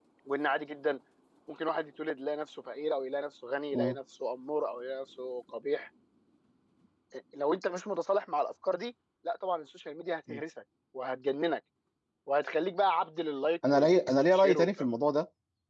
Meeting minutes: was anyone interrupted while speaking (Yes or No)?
Yes